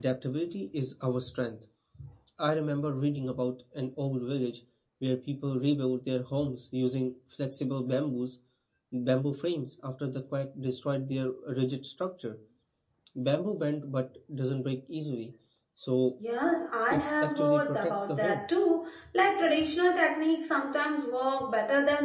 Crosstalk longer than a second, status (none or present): present